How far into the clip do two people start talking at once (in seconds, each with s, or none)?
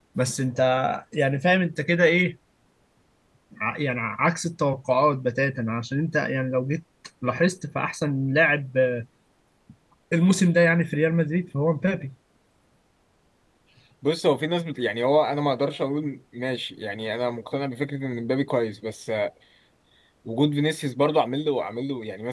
none